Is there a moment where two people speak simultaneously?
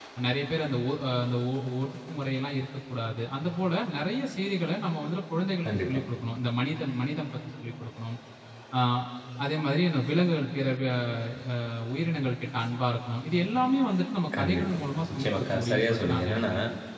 Yes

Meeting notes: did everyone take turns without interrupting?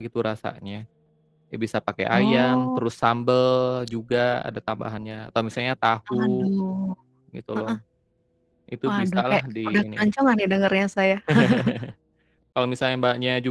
No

